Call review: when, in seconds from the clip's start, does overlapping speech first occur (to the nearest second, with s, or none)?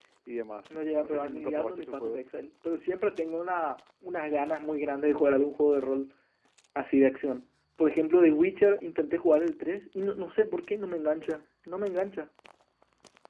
1 s